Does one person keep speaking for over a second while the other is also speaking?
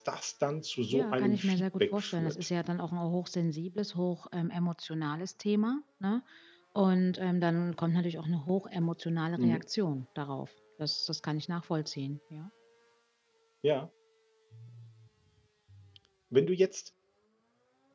Yes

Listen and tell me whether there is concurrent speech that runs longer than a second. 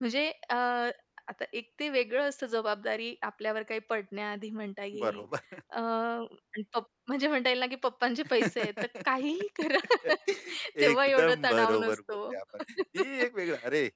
Yes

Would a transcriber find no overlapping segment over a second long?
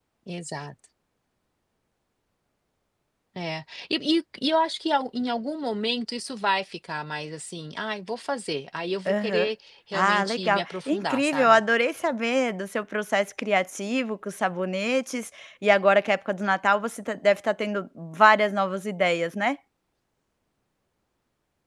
No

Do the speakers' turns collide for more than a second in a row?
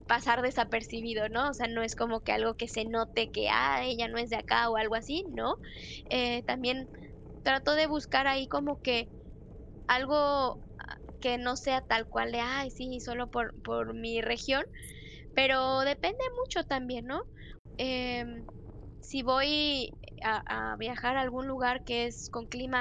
No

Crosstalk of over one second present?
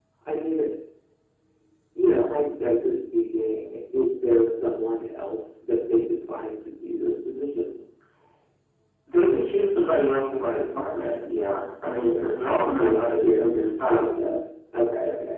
Yes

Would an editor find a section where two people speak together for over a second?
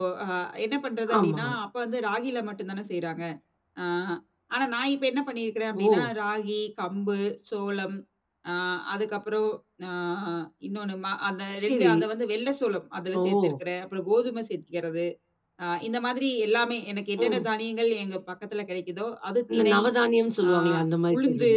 No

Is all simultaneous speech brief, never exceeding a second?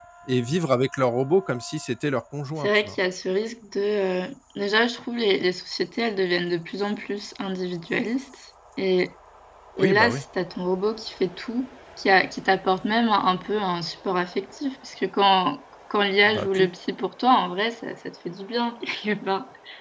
Yes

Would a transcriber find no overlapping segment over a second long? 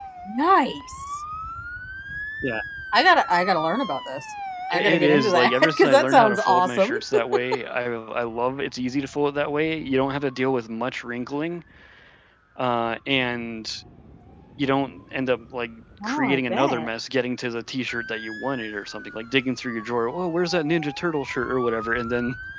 No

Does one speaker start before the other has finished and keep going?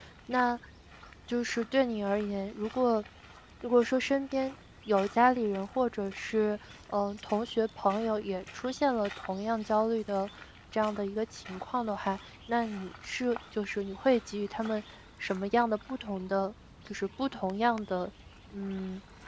No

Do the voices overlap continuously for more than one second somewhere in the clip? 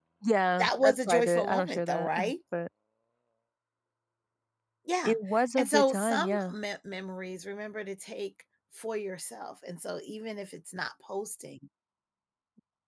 Yes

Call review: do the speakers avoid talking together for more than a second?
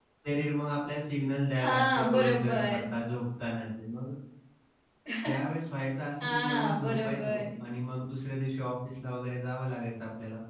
No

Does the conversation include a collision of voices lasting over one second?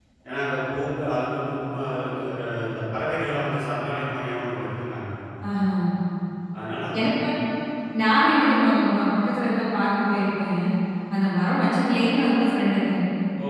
No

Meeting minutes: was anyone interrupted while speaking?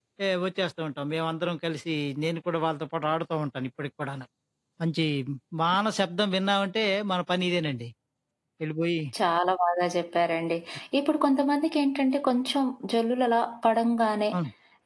No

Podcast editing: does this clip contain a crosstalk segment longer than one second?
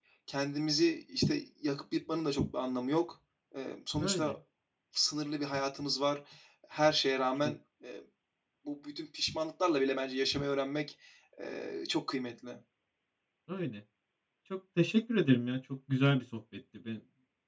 No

